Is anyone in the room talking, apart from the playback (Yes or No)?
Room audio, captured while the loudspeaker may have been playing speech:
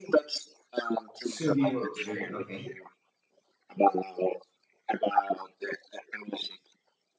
Yes